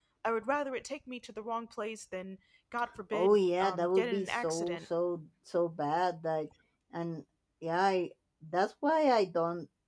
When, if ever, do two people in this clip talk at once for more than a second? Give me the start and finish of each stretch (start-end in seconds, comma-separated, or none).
3.1-4.8